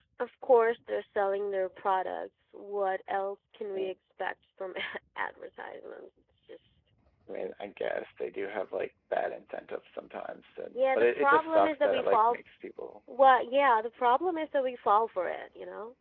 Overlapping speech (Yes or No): Yes